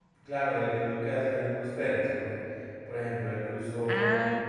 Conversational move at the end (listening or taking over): listening